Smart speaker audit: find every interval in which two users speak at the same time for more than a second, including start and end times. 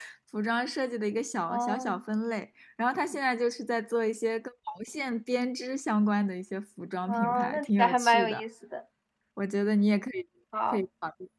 7.1-8.4

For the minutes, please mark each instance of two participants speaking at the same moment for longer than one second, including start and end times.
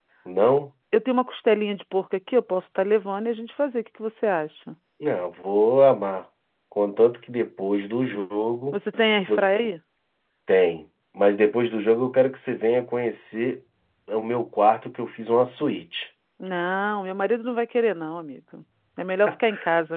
none

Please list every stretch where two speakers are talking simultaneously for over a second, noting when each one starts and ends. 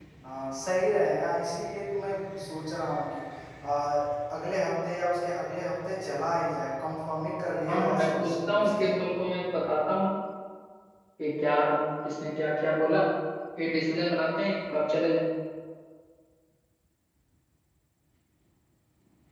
7.7-8.9

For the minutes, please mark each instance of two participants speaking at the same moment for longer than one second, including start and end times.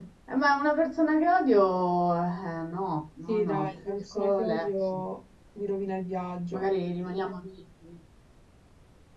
3.3-4.9

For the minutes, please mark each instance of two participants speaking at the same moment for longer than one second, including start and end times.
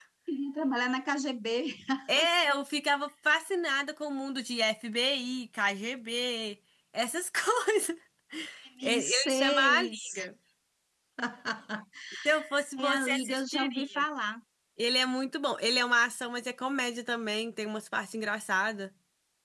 8.8-10.0, 12.8-14.0

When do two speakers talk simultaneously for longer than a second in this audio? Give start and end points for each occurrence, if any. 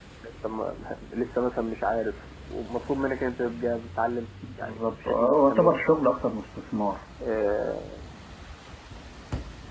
4.5-5.8

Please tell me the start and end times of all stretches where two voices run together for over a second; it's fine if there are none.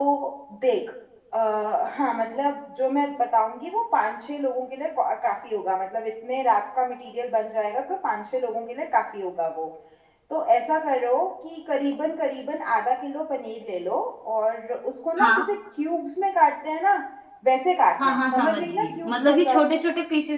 18.0-19.6

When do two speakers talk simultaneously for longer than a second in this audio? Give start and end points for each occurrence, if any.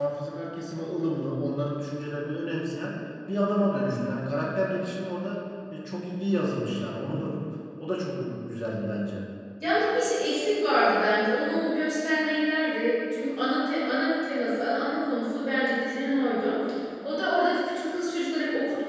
none

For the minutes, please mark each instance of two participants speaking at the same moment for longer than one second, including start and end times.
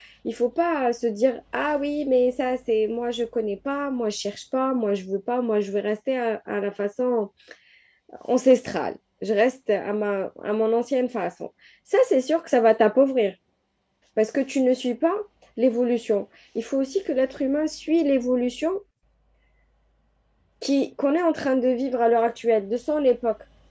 none

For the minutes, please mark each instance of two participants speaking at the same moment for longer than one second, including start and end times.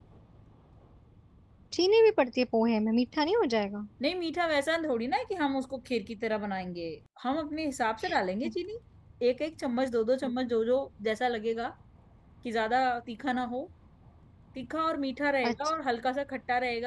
none

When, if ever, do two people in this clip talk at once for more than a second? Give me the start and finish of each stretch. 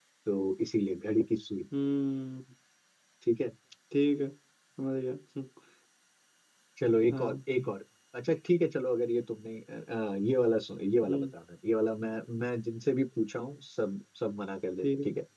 none

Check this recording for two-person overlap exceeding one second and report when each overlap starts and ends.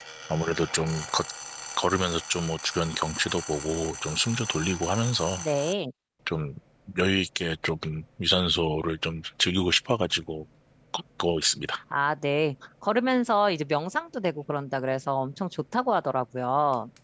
none

